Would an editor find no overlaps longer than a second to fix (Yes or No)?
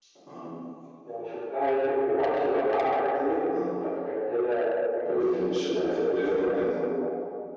No